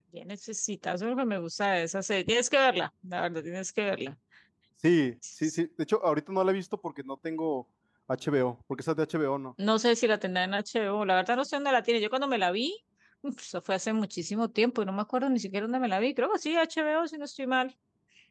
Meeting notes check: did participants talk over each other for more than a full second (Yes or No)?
No